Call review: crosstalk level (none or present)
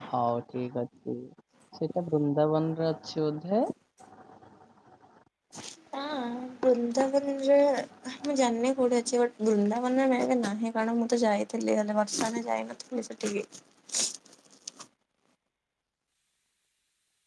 none